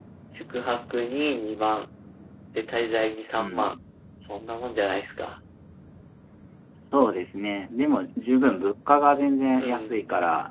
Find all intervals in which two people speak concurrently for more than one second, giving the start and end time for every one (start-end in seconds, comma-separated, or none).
none